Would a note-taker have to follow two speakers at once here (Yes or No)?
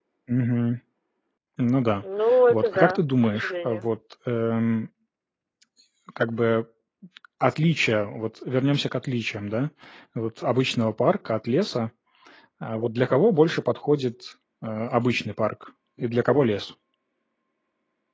Yes